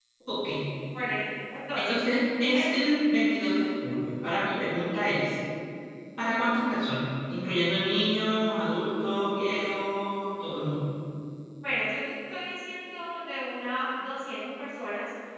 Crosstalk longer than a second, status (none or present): none